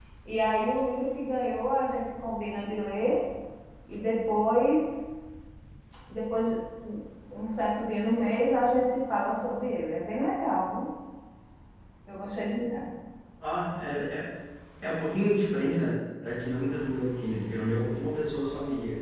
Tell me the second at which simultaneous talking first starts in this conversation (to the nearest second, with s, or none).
none